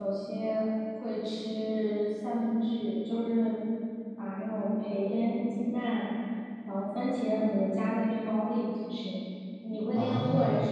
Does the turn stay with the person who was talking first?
No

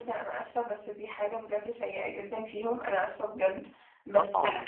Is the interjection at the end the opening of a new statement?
No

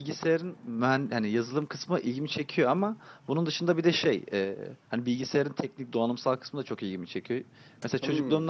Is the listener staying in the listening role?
Yes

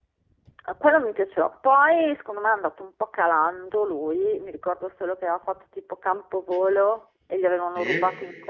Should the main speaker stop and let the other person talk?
No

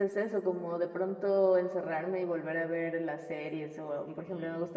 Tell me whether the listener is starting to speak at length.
No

